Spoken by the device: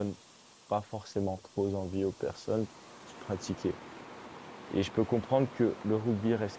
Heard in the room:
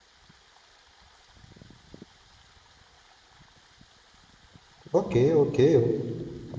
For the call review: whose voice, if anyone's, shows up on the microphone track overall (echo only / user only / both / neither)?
user only